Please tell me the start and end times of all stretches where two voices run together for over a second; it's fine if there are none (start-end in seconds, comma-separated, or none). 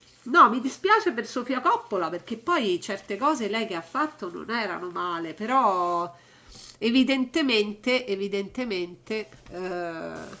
none